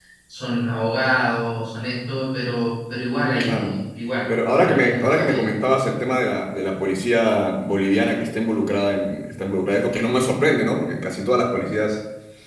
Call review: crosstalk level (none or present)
present